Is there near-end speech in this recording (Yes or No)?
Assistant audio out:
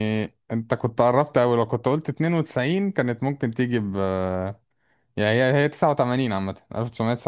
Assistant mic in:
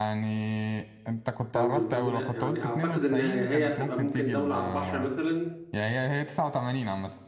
Yes